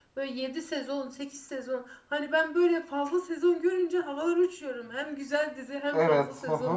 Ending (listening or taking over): taking over